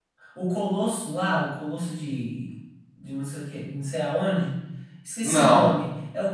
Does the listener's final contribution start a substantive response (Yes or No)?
No